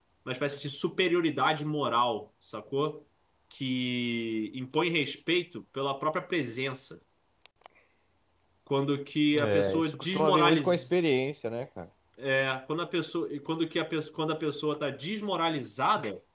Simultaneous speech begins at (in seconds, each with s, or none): 9.4 s